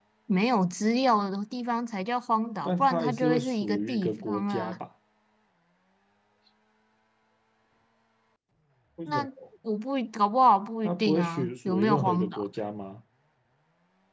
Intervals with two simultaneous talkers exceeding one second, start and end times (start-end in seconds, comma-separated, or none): 2.6-4.8, 10.8-12.5